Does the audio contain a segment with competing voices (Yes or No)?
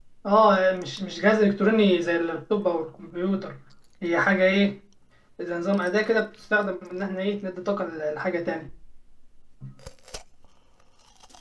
No